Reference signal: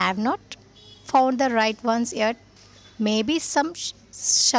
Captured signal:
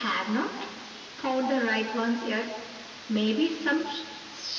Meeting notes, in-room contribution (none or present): none